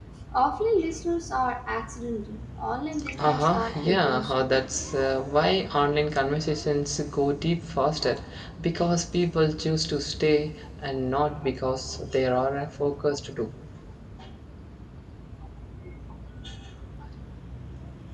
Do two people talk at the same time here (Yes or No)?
Yes